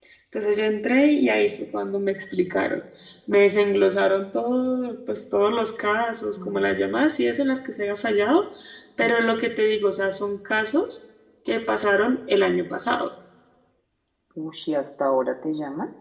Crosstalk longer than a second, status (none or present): none